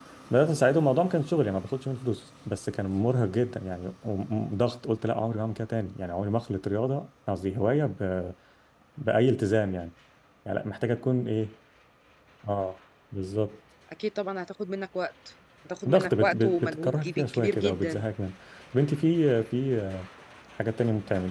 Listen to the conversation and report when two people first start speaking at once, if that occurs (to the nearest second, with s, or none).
16 s